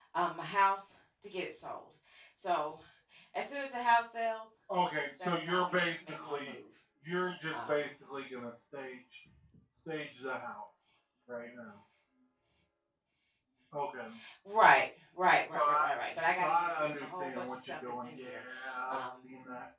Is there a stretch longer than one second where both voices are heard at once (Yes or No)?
Yes